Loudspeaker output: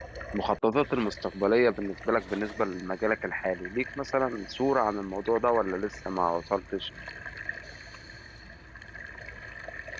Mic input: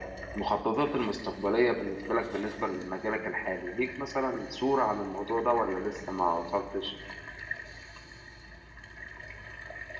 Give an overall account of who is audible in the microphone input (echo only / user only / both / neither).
echo only